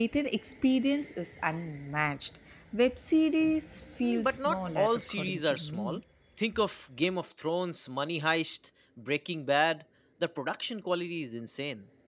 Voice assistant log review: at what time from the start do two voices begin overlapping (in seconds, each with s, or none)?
4.0 s